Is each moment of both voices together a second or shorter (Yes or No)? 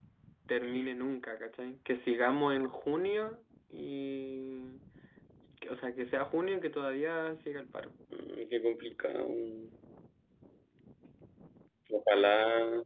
Yes